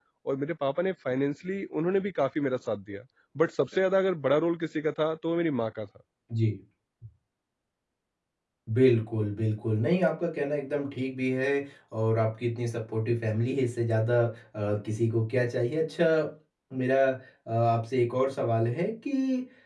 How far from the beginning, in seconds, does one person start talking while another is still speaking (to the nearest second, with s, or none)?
none